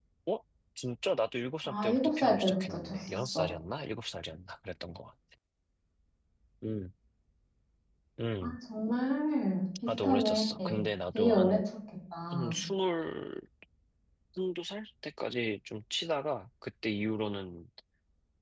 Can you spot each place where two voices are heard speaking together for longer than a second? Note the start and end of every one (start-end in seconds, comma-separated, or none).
1.6-3.5